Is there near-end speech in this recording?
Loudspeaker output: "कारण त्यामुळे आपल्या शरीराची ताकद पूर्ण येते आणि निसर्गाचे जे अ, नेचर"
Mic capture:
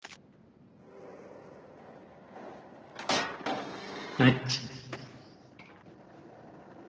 Yes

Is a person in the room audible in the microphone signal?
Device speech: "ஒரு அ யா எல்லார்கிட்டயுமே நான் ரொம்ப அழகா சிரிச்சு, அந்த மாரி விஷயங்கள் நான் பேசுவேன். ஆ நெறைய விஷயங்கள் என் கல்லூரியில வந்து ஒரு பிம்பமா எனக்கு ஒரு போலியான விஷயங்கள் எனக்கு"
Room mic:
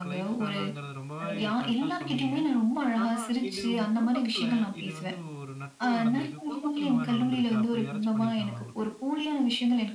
Yes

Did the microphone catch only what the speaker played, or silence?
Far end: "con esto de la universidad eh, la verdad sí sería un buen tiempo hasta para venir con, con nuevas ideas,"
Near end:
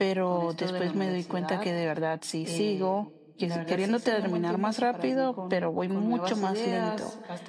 No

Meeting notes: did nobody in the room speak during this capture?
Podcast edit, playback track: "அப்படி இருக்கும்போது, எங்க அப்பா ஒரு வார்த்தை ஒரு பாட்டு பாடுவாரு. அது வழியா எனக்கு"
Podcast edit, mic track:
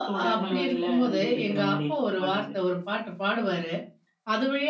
No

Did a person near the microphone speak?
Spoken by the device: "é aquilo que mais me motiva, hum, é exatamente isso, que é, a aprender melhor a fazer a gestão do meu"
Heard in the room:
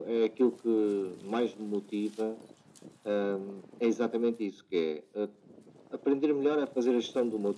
No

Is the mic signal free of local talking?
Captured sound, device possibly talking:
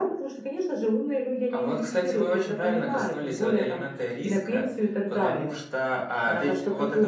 Yes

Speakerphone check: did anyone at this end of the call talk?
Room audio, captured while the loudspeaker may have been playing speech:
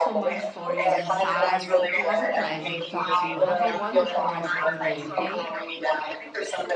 Yes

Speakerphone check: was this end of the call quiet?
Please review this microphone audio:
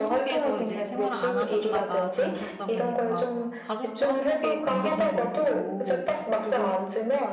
No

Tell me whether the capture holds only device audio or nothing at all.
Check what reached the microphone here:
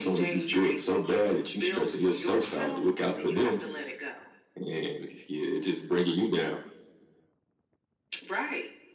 Yes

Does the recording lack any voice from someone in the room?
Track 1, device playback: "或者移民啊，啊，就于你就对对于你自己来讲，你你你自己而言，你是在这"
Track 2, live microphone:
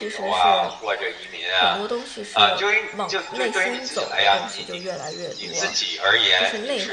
No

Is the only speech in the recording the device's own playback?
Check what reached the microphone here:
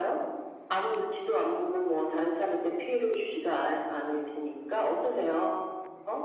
Yes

